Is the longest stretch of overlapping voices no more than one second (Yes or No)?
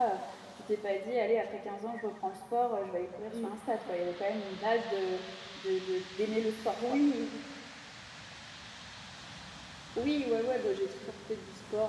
Yes